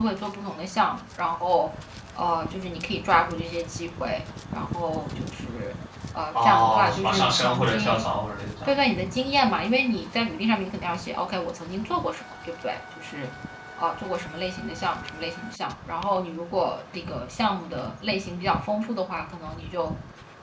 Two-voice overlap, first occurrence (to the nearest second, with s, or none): 6 s